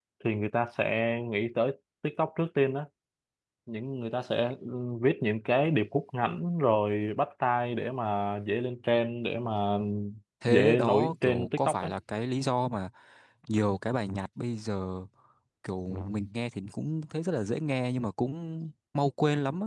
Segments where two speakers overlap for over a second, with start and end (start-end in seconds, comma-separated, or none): 10.5-11.9